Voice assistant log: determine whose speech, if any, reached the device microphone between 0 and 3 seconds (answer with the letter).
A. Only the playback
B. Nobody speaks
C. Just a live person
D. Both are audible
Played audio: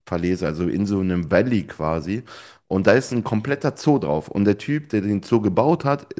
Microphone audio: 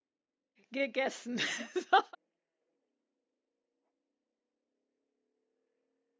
C